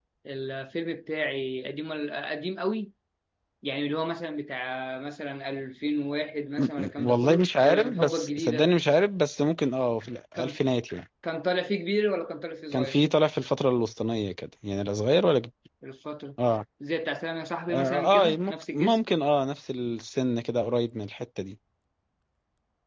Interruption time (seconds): 7 s

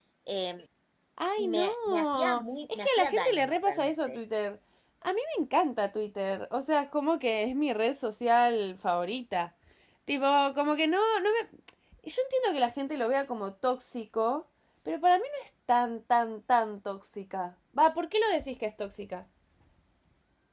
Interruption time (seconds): 1 s

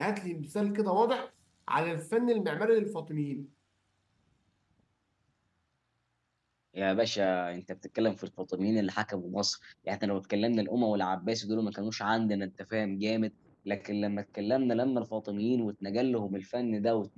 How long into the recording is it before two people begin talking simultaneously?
none

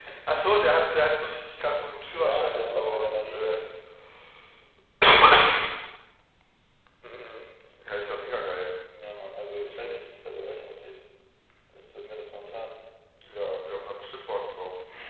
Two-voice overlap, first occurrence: 2 s

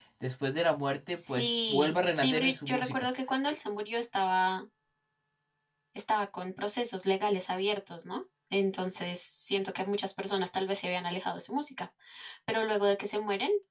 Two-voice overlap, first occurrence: 1 s

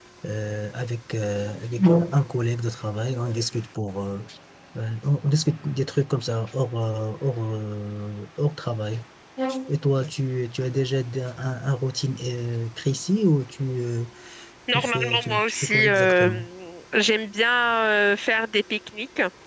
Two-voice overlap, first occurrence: 15 s

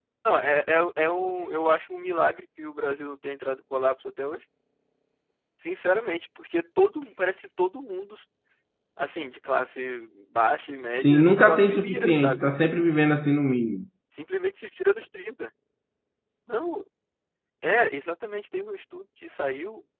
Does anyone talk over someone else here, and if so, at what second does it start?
11 s

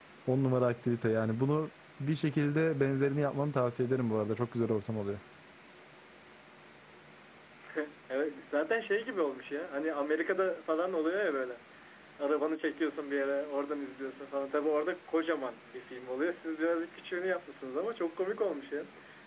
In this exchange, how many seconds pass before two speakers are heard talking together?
none

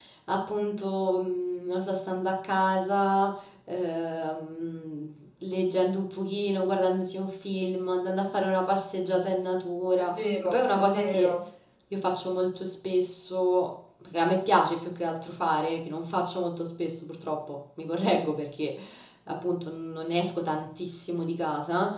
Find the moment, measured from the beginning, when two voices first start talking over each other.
10 s

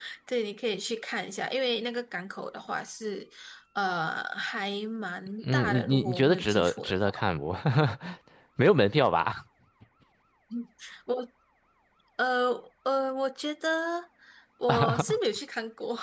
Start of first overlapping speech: 5 s

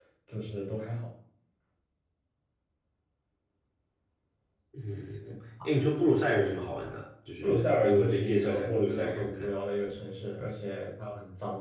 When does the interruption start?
7 s

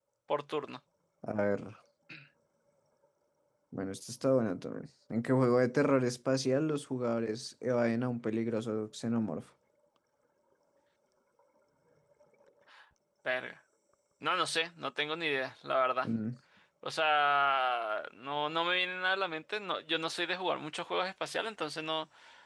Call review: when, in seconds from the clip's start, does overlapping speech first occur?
none

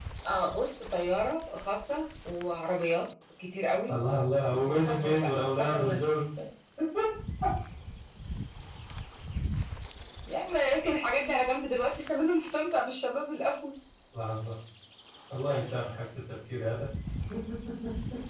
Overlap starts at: 5 s

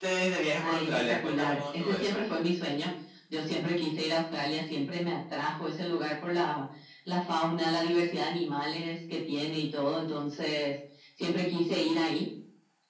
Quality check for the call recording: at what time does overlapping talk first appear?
1 s

